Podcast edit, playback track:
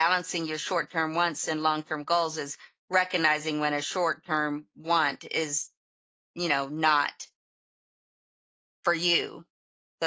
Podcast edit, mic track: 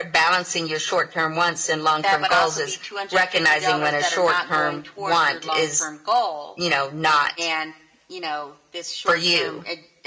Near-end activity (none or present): present